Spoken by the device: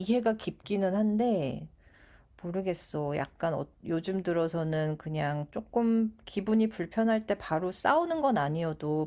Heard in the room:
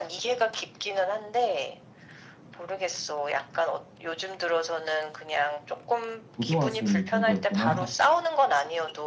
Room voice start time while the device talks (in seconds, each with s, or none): 6.3 s